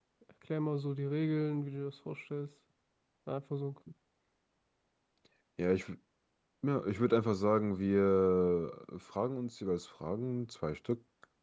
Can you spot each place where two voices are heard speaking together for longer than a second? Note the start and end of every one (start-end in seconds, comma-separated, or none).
none